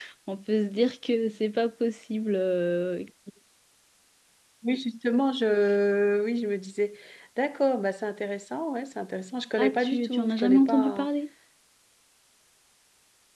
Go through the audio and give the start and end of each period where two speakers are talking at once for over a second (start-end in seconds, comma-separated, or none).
9.6-11.1